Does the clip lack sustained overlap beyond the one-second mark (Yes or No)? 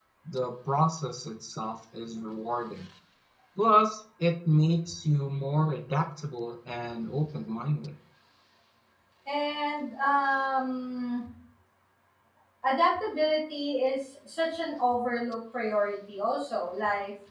Yes